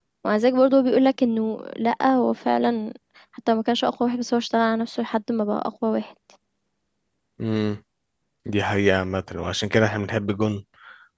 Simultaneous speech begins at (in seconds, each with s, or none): none